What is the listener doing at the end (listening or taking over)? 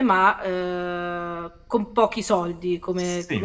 taking over